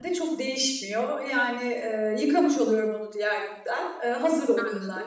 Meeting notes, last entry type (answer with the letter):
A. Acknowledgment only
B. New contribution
A